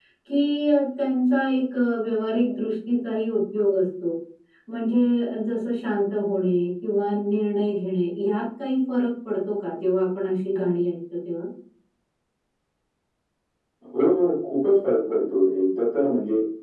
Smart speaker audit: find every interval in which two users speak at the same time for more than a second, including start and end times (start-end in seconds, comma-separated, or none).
none